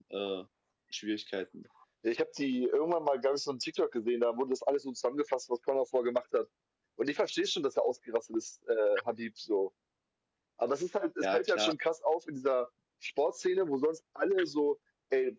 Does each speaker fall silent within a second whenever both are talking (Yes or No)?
Yes